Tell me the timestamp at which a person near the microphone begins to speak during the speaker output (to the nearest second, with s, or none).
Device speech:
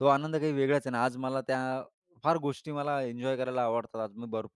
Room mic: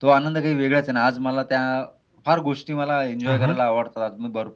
3 s